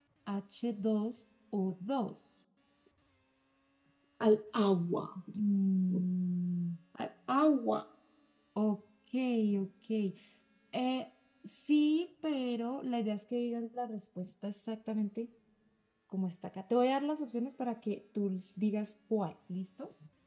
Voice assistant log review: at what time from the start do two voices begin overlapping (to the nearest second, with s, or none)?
none